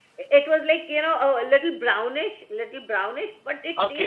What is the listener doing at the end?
taking over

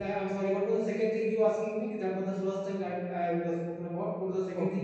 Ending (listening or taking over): taking over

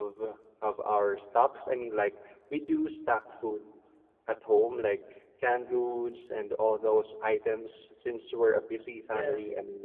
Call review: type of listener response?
listening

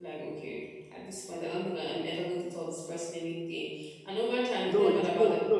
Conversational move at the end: taking over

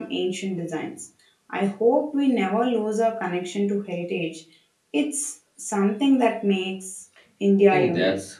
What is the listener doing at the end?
taking over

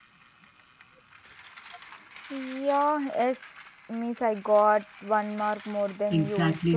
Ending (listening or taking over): taking over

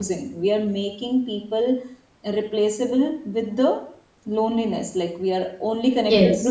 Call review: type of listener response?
listening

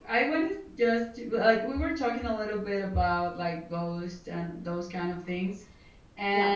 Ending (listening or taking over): listening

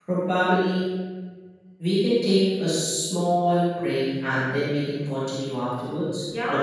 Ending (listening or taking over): taking over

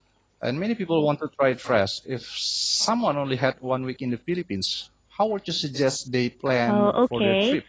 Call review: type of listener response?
taking over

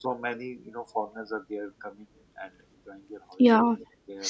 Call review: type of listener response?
taking over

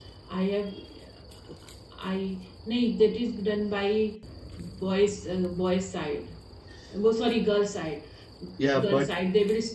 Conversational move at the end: listening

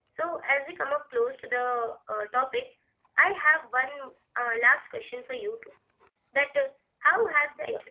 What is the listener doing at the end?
listening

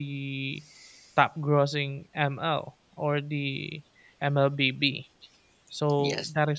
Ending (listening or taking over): listening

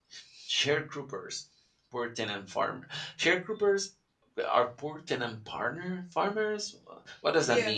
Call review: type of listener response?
taking over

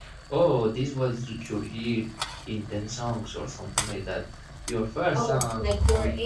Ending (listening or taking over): taking over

